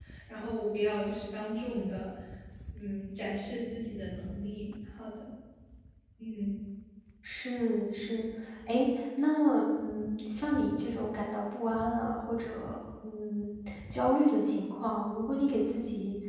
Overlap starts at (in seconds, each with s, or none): none